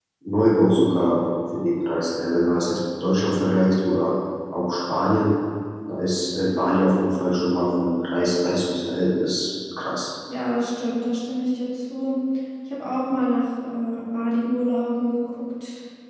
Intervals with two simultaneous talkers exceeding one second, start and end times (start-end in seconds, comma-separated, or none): none